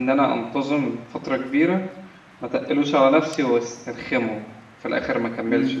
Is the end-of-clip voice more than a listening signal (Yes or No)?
Yes